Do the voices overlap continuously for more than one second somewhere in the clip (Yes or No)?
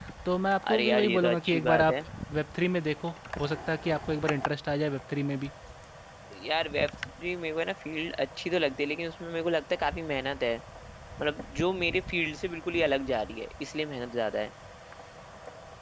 Yes